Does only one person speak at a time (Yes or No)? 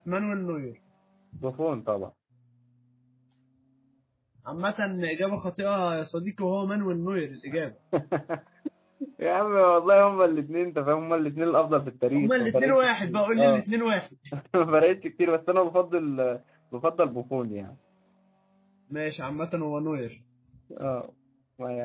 No